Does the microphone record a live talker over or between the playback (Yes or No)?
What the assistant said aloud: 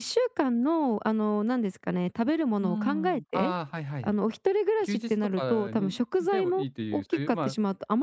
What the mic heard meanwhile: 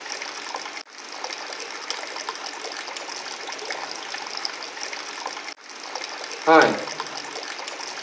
Yes